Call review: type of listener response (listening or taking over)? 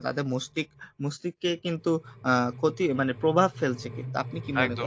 taking over